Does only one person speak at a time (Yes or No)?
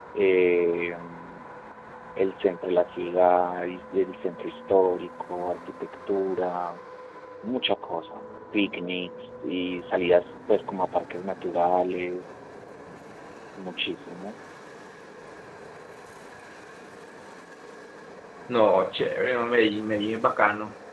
Yes